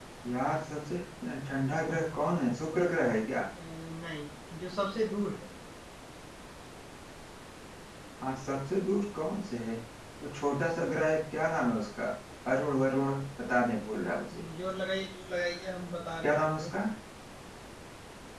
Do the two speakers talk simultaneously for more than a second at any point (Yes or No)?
No